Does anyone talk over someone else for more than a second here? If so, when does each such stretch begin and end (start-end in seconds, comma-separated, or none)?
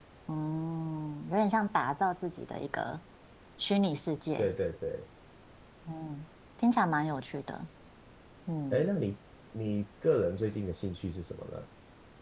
none